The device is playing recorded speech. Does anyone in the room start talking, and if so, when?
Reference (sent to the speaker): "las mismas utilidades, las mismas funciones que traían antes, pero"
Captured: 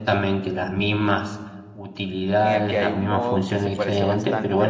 2.4 s

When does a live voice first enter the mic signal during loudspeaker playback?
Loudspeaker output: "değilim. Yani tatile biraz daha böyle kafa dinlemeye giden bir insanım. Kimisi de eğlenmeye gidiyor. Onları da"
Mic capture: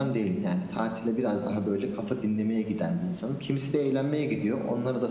none

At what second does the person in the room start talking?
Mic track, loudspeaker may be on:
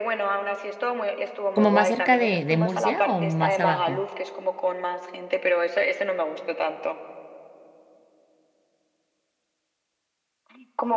1.5 s

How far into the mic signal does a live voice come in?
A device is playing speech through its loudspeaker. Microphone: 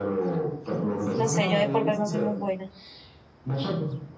0.9 s

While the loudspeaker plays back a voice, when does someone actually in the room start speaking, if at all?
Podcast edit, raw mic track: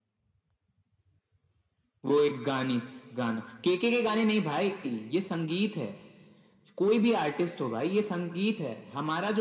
none

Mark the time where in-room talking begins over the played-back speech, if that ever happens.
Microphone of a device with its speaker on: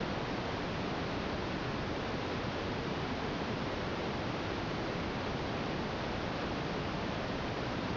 none

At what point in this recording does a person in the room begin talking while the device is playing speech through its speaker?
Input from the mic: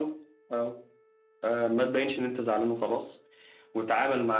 none

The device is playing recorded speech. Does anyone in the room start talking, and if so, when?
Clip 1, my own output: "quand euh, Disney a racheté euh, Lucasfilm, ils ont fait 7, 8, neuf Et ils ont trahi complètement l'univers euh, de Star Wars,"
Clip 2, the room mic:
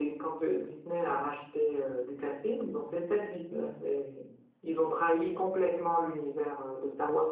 none

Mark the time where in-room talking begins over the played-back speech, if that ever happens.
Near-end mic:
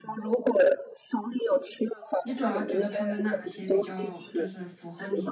2.2 s

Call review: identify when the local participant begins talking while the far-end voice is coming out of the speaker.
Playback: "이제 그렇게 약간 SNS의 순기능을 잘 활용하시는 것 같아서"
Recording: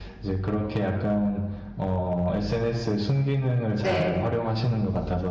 3.8 s

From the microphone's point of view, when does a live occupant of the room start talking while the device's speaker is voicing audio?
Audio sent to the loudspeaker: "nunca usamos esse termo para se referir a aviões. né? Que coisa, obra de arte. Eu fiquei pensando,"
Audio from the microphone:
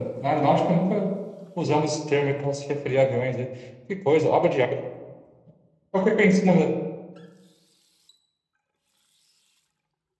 none

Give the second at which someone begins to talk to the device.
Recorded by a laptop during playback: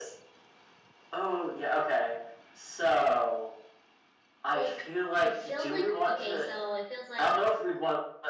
4.5 s

